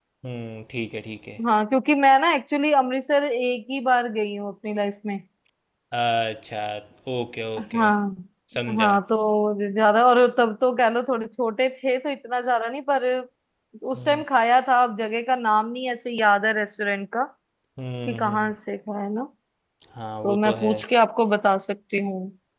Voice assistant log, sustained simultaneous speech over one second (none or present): none